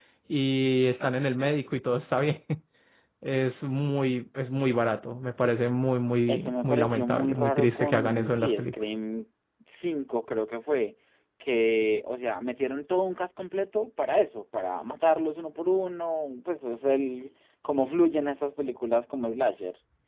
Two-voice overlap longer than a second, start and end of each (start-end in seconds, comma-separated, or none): 6.3-8.7